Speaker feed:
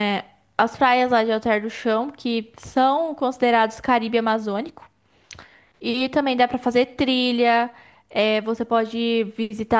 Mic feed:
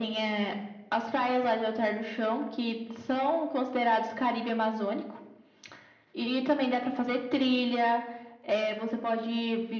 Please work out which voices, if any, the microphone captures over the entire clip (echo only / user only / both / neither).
echo only